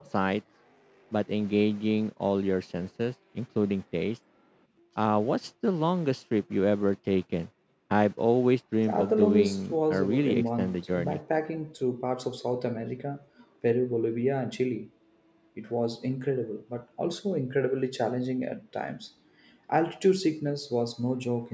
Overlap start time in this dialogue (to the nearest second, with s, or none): 9 s